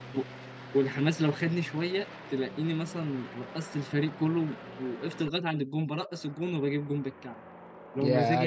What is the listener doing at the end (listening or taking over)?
taking over